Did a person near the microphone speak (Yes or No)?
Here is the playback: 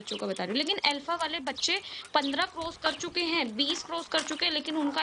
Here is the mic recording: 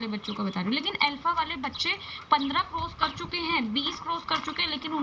No